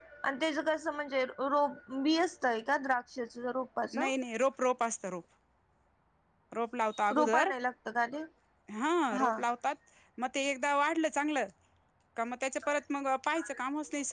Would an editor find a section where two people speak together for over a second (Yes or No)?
No